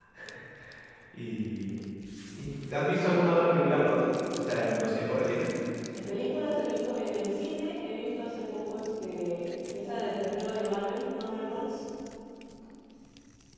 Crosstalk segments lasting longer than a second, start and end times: none

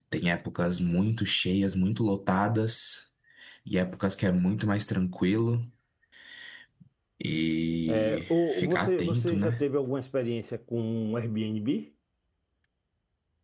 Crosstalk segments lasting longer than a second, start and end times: 7.9-9.6

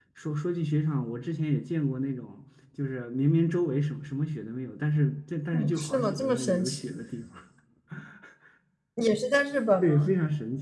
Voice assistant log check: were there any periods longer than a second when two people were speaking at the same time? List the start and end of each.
5.5-6.8

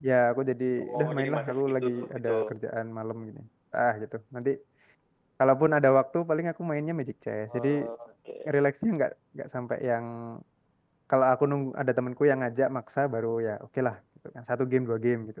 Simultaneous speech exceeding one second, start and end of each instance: 0.8-2.3

